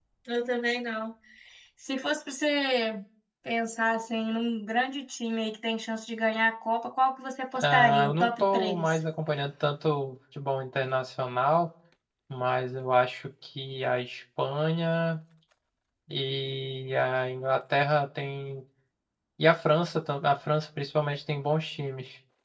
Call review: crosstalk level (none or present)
present